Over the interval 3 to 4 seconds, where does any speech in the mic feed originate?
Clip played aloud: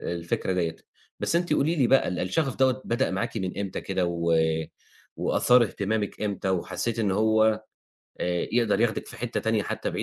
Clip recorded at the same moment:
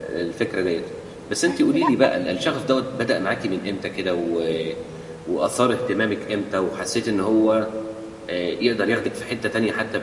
echo only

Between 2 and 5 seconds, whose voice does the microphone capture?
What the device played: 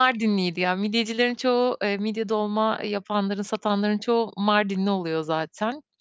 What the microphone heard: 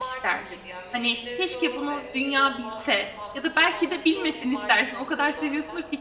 both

